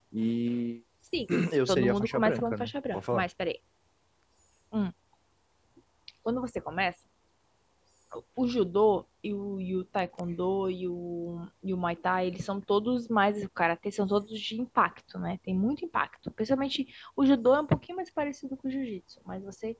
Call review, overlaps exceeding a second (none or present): present